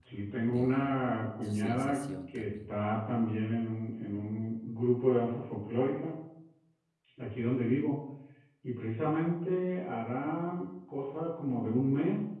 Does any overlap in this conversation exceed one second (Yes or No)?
Yes